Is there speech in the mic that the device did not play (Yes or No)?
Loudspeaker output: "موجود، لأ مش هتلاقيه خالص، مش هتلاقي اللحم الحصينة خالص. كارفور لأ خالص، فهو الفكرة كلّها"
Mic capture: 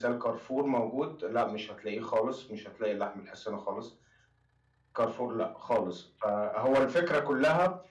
No